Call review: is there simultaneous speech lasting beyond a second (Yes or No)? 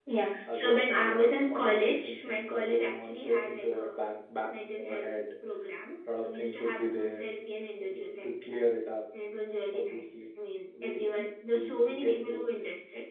Yes